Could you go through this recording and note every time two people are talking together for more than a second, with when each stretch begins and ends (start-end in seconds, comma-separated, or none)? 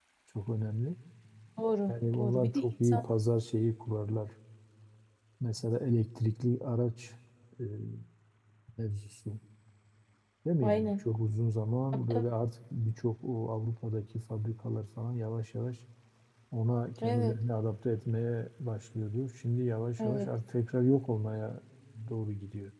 1.9-3.1